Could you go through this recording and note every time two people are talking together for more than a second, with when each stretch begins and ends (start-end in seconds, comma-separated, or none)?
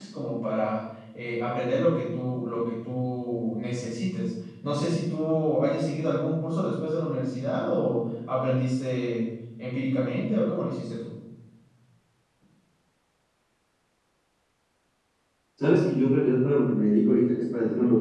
none